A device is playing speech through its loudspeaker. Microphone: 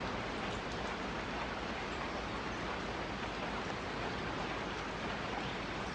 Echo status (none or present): none